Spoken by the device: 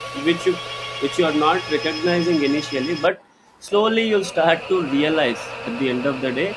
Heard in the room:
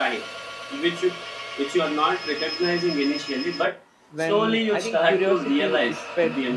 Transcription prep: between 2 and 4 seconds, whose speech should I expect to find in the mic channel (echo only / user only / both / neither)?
echo only